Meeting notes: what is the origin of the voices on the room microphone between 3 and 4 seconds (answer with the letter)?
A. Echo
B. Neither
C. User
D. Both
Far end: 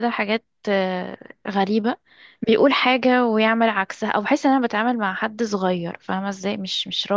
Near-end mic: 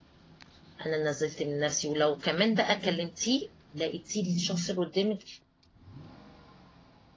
C